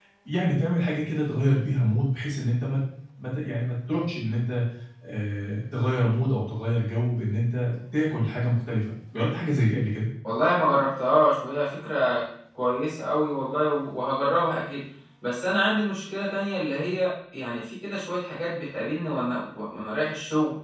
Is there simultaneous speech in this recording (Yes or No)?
No